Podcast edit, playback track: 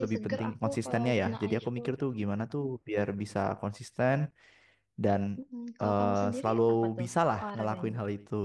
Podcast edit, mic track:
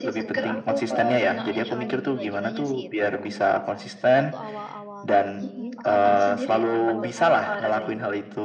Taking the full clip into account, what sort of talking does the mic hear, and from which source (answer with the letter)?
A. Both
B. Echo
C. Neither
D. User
A